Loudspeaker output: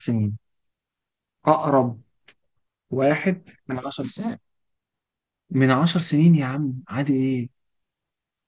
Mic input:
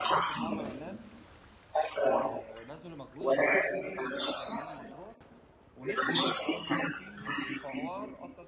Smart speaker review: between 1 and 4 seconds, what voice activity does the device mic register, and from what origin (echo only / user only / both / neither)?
both